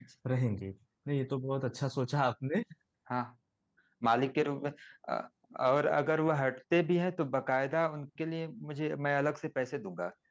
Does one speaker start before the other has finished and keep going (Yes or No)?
No